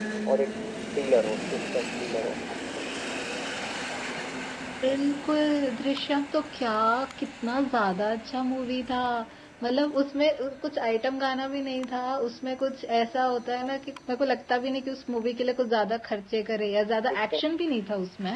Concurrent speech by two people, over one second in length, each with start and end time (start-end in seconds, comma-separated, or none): none